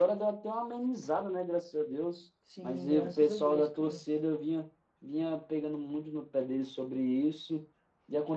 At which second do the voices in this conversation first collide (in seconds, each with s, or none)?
2.5 s